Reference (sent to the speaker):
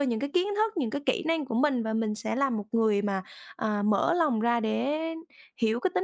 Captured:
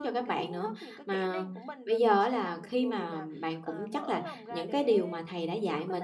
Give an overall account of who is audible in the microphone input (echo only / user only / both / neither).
both